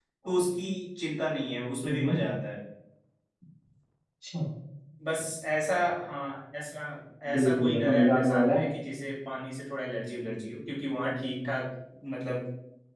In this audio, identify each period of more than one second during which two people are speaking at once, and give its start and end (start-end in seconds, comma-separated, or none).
7.3-8.6